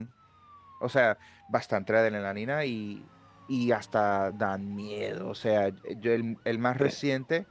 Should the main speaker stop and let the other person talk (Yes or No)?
No